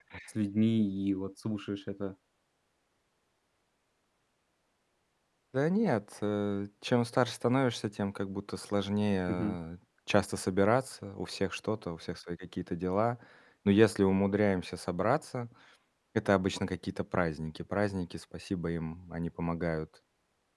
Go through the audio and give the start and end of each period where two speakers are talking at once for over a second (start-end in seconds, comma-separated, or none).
none